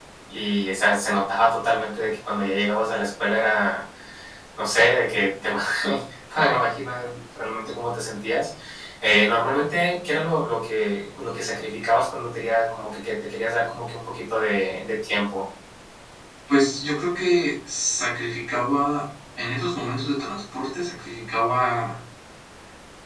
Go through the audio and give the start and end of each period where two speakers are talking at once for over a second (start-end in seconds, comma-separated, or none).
none